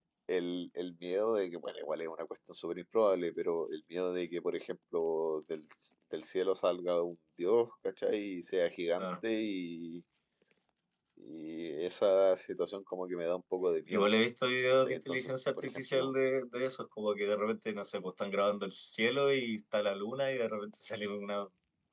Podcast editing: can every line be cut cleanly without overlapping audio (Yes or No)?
No